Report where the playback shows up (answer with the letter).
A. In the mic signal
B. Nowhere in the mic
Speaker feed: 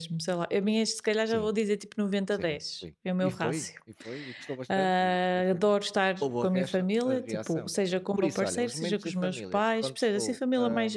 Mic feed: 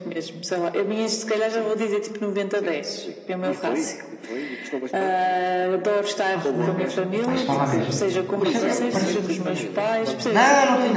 A